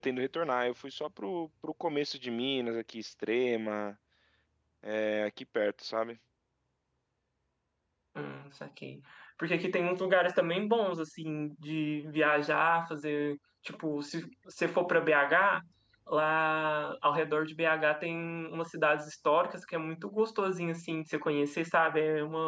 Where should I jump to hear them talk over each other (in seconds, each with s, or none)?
none